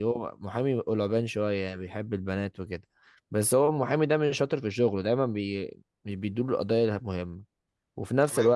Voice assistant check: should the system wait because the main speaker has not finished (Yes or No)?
Yes